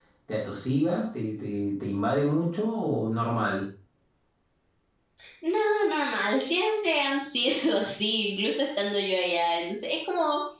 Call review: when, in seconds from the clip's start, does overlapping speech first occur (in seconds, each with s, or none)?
none